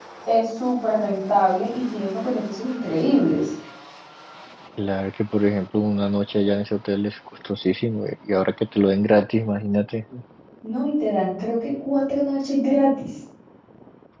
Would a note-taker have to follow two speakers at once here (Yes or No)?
No